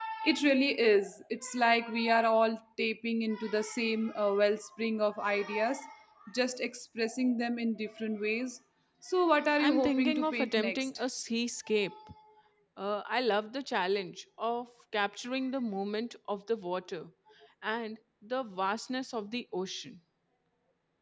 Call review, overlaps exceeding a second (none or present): present